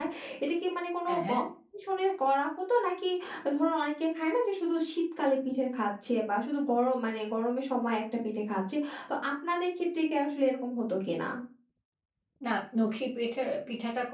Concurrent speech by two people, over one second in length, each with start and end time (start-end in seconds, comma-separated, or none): none